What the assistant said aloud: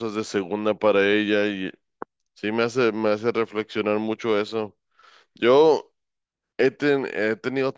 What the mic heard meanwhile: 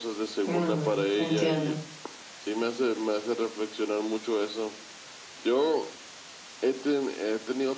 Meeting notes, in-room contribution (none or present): present